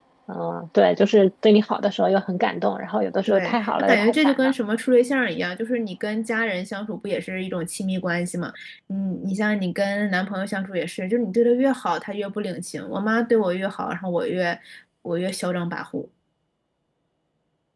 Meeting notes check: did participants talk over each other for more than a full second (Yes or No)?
Yes